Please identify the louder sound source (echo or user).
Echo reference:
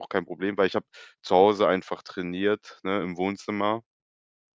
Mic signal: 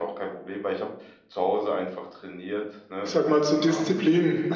user